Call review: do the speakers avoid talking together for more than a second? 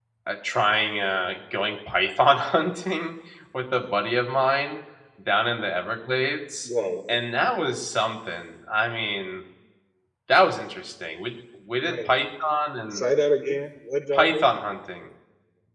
Yes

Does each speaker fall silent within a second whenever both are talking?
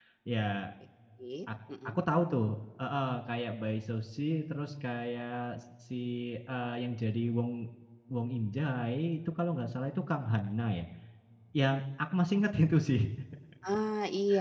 Yes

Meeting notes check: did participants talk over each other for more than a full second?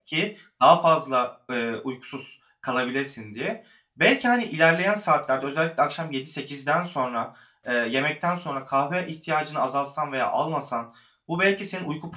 No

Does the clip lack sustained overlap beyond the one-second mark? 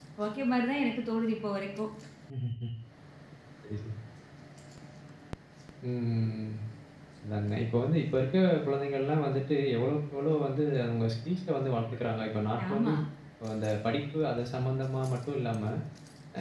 Yes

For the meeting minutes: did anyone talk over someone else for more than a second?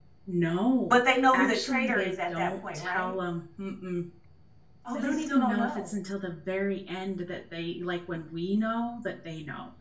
Yes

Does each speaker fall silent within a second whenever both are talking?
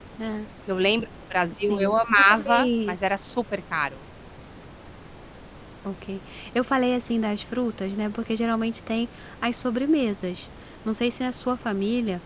No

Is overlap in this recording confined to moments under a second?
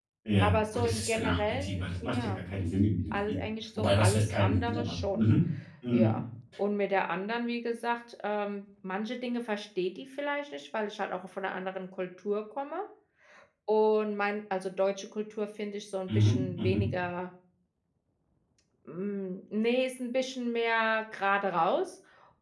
No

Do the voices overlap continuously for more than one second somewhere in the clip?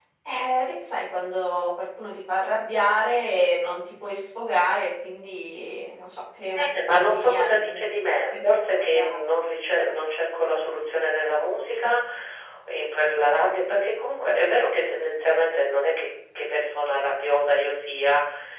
Yes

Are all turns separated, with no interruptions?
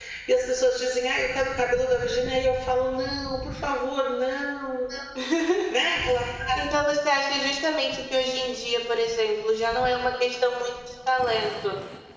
Yes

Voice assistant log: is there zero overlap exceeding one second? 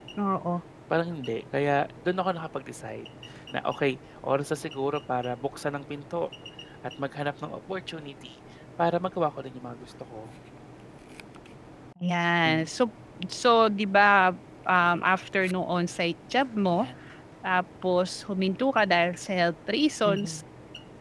Yes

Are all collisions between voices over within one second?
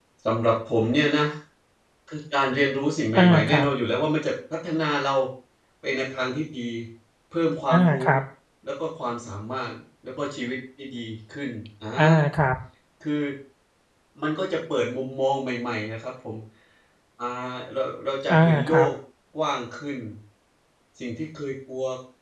Yes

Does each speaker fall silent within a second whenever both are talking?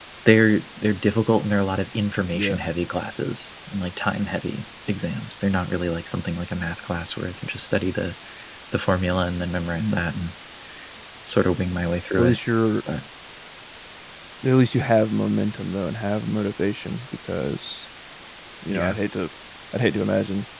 Yes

